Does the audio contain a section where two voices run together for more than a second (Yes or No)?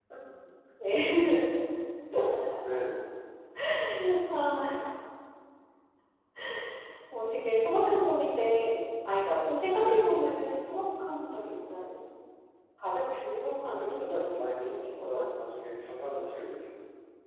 Yes